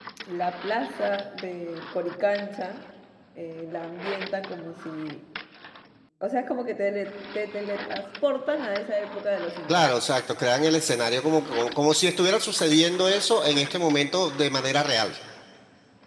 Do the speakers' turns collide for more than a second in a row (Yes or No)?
No